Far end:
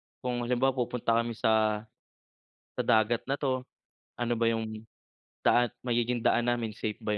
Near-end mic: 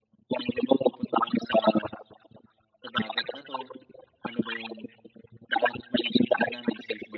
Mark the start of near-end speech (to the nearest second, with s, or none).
none